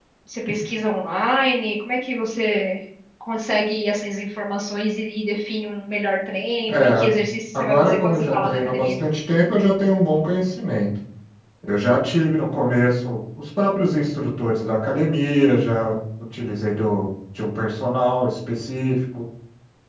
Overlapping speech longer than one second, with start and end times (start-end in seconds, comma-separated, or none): 7.5-9.0